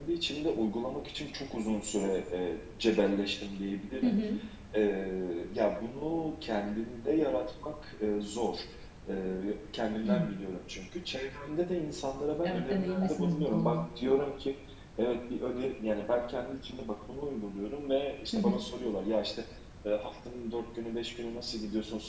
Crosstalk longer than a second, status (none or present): present